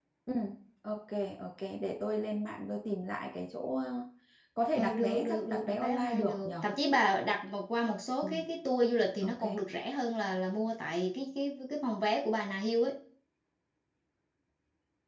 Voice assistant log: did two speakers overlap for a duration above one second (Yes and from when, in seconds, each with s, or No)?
Yes, from 4.8 s